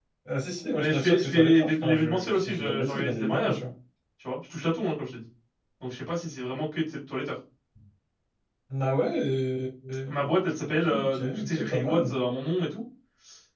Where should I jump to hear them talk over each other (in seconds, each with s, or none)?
0.8 s